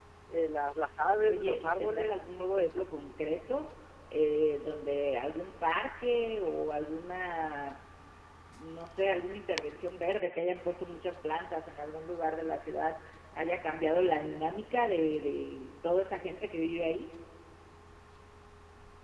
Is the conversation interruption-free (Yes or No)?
No